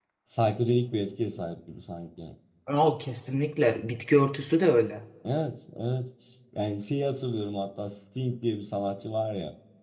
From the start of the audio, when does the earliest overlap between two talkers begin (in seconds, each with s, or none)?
none